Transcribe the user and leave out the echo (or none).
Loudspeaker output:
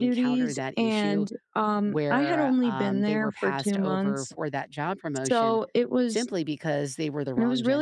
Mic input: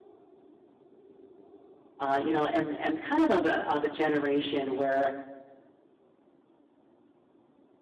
uh, you know, am am kind of of a of a generation where